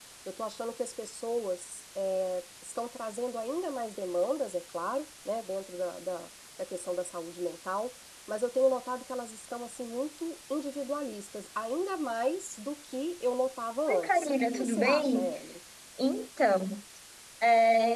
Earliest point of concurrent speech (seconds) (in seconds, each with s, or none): 13.9 s